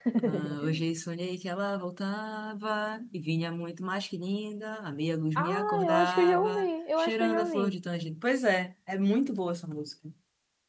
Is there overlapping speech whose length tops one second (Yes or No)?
Yes